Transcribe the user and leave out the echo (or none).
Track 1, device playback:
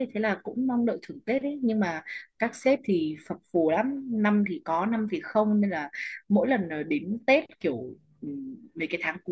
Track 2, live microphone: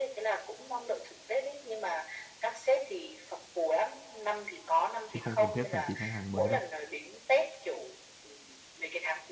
chứ không cần thiết phải tìm khách hàng mới đâu